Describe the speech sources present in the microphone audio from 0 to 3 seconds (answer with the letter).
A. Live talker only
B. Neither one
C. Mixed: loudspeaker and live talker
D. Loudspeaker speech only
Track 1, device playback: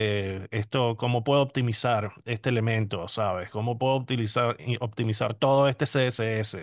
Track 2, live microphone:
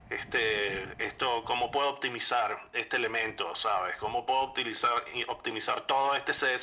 D